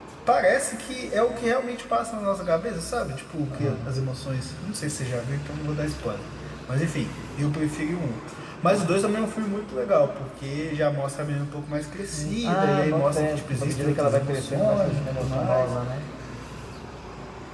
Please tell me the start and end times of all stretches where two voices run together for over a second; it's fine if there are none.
12.1-15.7

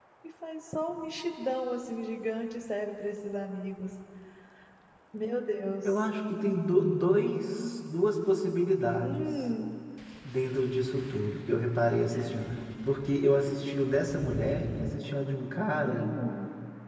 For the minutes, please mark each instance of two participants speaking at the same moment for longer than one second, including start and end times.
none

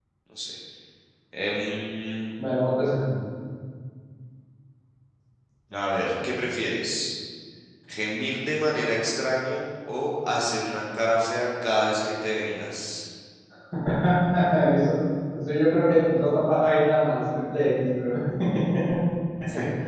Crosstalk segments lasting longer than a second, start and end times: none

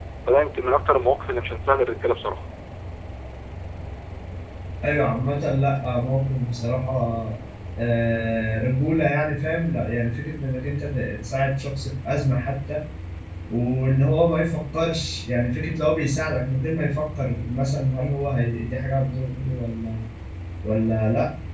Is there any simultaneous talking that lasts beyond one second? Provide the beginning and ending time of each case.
none

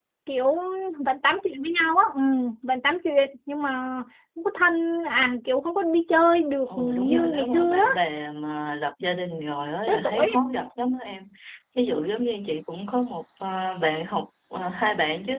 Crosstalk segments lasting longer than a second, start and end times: 6.7-8.0

